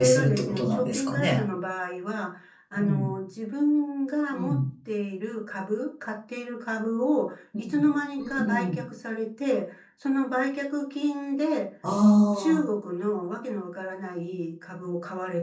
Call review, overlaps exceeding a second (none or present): present